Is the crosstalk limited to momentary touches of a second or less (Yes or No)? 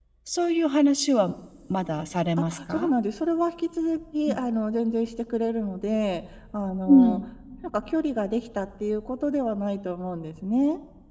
Yes